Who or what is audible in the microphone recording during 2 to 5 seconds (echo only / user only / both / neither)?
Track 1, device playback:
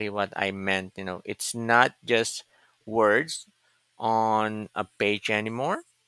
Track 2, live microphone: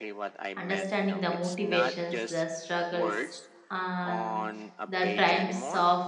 both